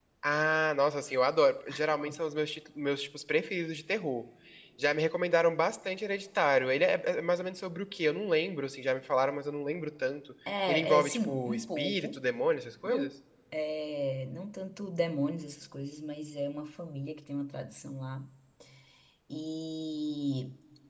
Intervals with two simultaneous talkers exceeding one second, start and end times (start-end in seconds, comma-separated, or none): 10.7-12.2